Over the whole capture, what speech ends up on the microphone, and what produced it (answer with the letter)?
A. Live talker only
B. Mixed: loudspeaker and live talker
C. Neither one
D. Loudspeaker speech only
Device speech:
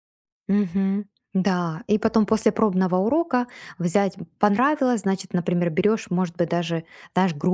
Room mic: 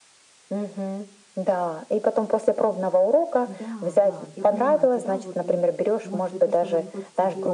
B